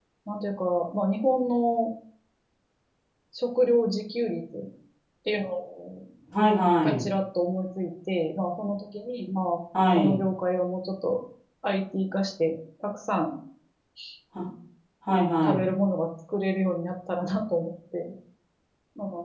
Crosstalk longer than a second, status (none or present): none